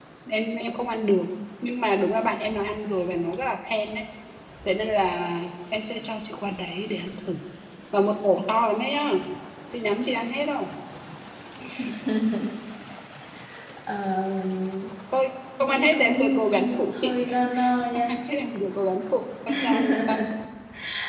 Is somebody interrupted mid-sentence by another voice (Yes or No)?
Yes